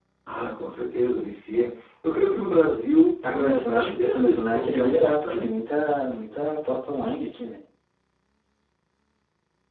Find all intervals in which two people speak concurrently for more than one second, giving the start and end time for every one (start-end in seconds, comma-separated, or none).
3.3-5.5